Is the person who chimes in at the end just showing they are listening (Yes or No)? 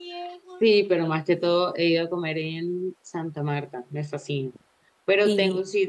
Yes